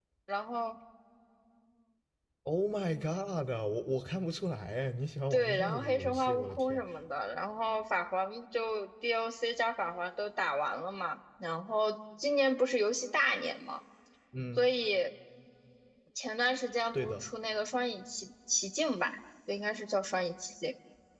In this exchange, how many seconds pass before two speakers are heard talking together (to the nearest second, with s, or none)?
5 s